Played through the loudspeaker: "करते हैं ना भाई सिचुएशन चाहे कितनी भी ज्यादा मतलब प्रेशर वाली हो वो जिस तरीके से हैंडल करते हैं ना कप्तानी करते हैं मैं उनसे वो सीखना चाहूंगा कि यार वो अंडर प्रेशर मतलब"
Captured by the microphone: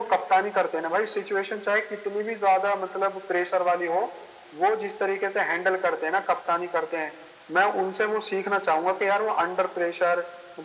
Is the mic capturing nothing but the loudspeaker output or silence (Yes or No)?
Yes